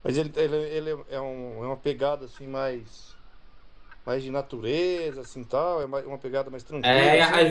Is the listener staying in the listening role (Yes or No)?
No